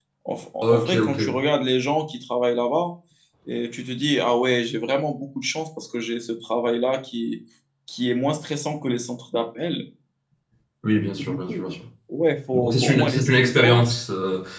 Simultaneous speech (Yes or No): Yes